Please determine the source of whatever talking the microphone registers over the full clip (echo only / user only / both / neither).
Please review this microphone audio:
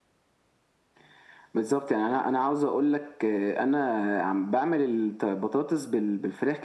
echo only